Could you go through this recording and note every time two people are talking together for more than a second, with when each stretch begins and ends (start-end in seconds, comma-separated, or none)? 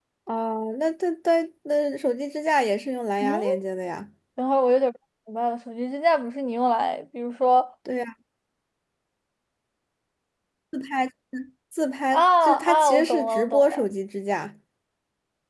12.1-13.8